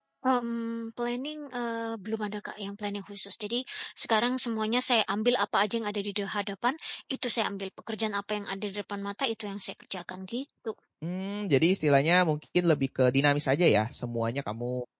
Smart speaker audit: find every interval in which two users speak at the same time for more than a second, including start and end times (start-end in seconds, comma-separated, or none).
none